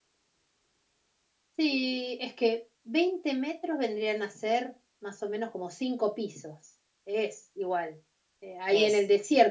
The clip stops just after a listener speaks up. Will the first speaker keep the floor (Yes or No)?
Yes